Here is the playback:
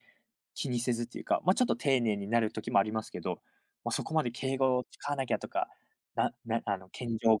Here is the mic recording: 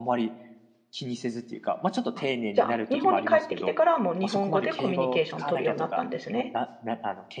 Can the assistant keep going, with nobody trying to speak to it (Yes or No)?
No